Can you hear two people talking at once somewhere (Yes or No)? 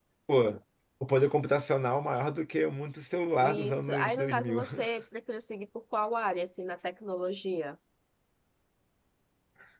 Yes